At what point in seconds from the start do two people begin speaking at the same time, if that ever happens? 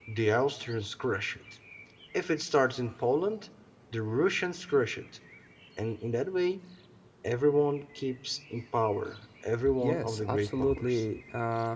9.7 s

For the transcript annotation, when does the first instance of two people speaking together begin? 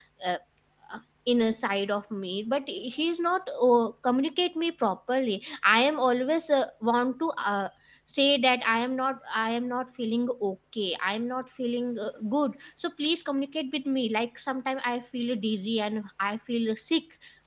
none

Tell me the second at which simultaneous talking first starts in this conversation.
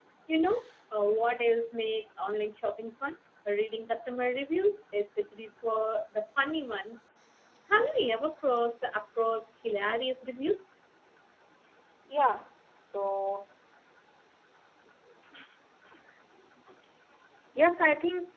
none

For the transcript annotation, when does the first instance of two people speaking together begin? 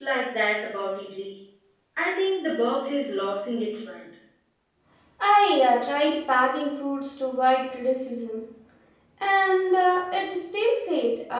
none

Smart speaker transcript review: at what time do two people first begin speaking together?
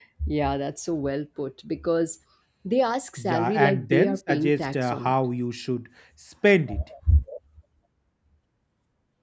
3.2 s

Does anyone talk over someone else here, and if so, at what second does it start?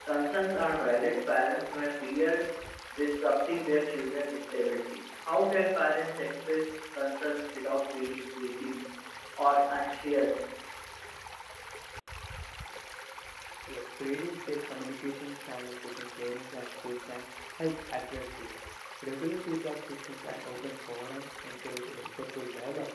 none

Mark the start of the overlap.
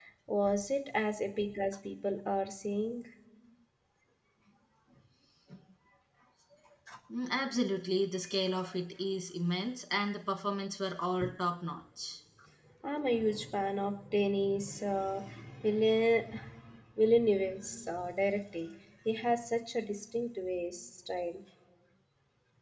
none

